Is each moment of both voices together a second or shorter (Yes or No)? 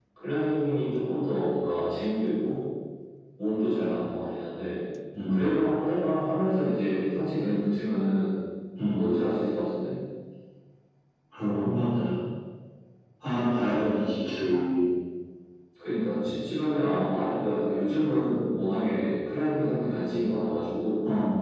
Yes